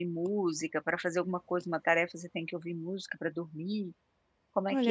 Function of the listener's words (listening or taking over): taking over